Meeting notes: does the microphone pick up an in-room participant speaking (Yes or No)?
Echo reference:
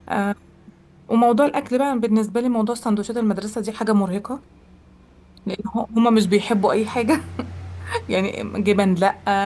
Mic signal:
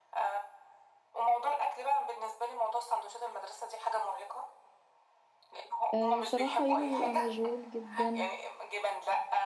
Yes